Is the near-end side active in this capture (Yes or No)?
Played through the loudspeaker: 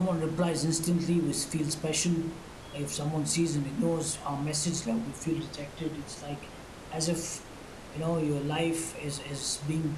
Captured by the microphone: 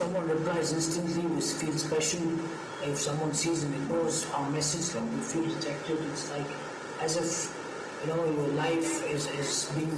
Yes